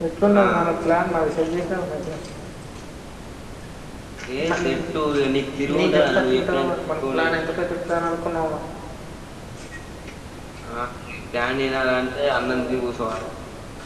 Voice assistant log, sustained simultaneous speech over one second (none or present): present